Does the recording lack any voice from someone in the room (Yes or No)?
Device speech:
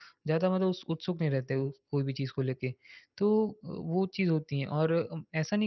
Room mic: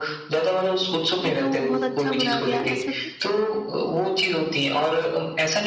No